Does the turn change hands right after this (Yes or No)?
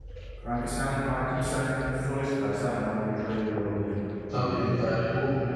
Yes